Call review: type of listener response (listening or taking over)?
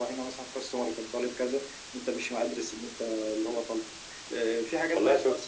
taking over